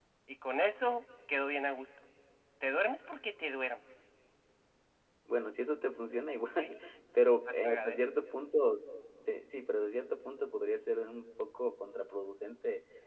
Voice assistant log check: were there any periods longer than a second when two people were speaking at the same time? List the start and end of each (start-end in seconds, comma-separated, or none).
none